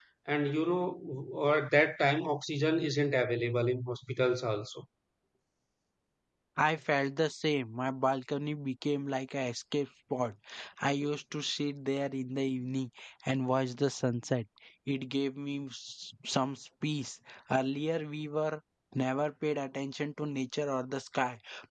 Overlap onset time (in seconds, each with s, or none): none